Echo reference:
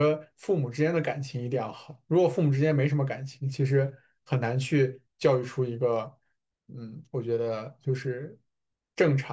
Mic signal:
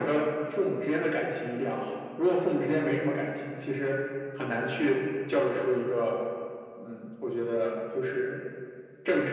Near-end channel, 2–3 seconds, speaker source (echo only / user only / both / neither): echo only